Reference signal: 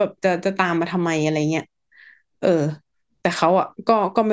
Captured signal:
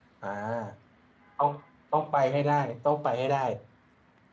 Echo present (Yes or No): No